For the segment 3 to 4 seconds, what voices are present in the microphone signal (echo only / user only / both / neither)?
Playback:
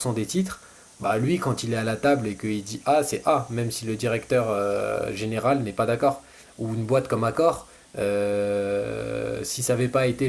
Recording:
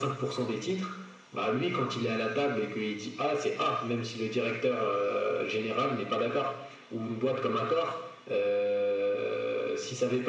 echo only